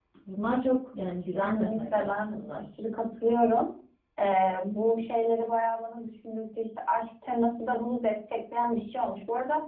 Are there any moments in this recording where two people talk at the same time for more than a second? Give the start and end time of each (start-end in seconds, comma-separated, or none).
1.3-2.6